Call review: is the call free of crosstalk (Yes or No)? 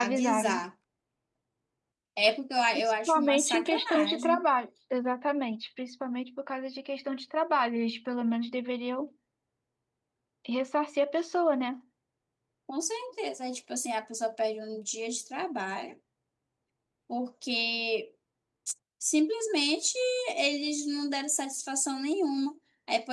No